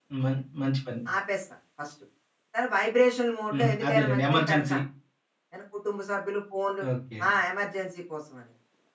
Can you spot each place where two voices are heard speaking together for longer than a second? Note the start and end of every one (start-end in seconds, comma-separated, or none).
3.5-4.8